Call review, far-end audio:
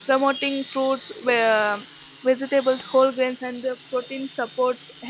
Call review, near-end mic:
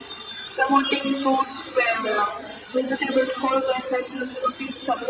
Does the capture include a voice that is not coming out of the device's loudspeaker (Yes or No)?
No